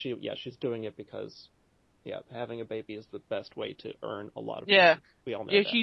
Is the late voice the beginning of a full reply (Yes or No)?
Yes